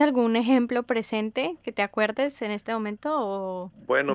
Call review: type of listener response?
taking over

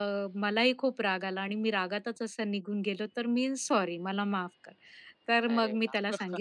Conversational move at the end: listening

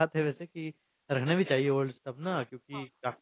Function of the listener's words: listening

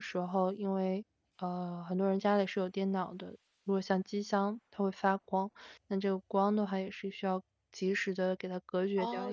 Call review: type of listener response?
taking over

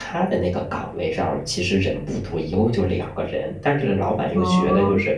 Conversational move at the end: listening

